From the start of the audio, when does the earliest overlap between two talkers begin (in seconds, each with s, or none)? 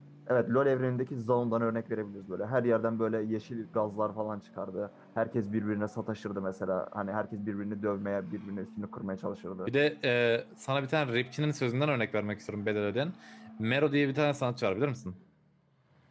none